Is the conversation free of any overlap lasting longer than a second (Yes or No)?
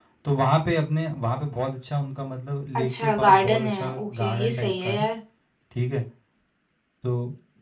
No